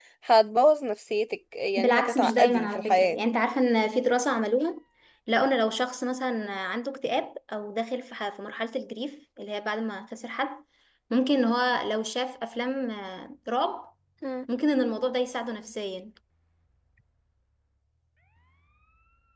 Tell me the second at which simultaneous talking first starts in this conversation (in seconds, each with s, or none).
1.8 s